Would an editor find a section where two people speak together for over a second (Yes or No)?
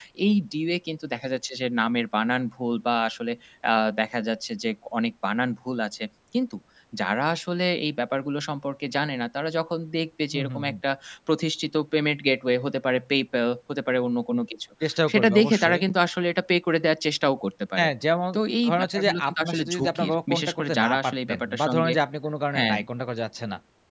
Yes